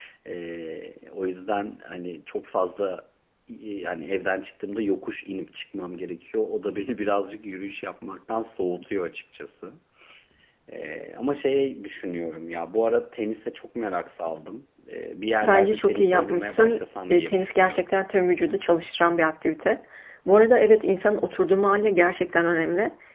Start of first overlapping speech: 15.4 s

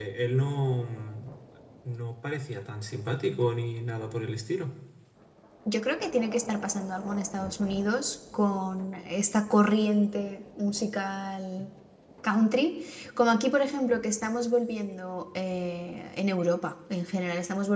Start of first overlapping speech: none

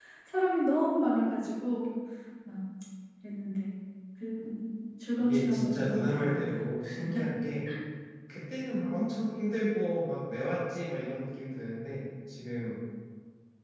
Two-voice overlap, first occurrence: 5.2 s

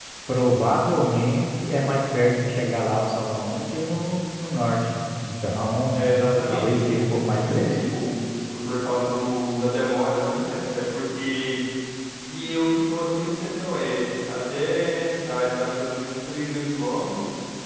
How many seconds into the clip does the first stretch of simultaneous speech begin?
6.5 s

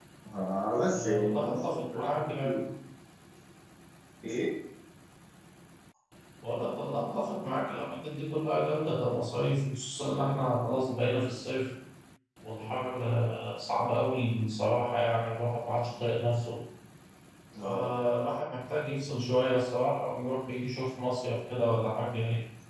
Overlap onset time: 0.9 s

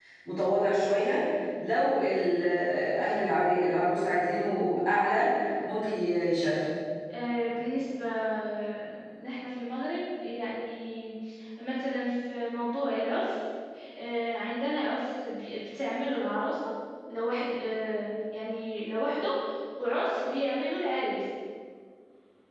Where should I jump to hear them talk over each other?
none

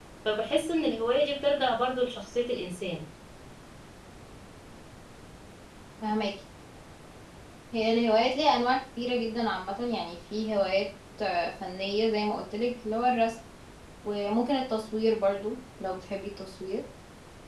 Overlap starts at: none

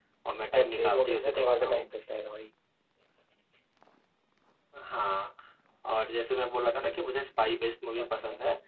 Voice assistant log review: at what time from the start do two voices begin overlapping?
0.6 s

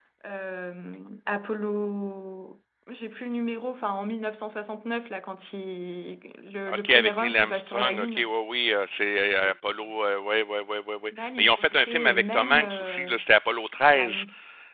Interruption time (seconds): 6.7 s

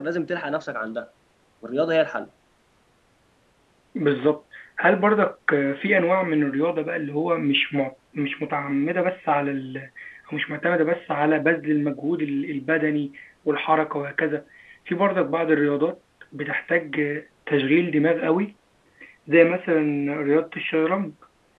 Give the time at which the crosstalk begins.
none

